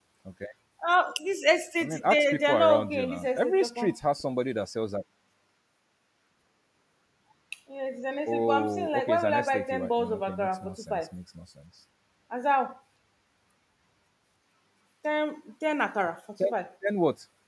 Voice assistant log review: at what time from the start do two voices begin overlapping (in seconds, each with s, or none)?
1.8 s